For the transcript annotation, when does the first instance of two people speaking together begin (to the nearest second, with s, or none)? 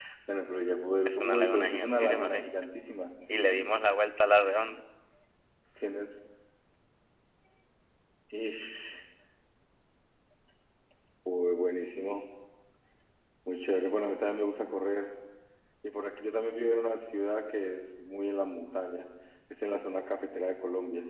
1 s